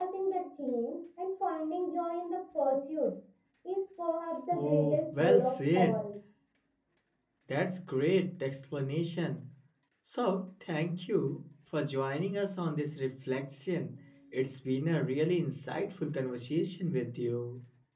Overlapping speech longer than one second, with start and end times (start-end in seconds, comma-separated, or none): 4.5-6.0